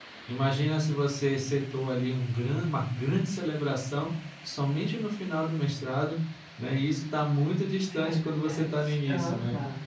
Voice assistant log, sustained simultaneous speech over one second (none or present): present